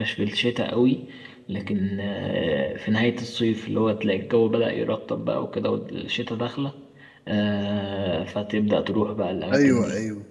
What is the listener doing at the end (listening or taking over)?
taking over